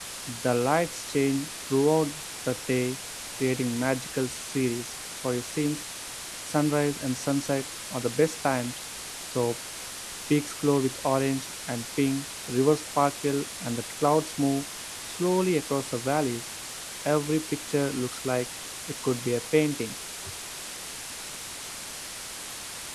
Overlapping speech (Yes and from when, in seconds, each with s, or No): No